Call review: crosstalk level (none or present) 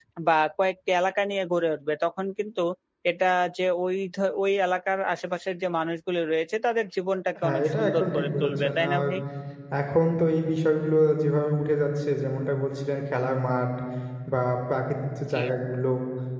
present